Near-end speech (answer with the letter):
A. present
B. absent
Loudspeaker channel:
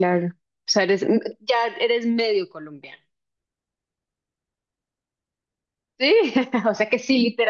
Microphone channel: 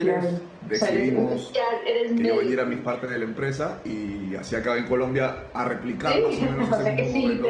A